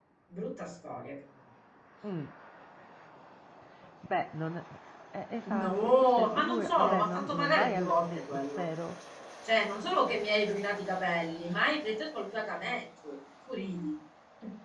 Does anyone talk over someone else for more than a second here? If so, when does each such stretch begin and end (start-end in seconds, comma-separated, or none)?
5.5-8.6